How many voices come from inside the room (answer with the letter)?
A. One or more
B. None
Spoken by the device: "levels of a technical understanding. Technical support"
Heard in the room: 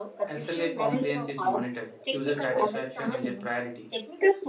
A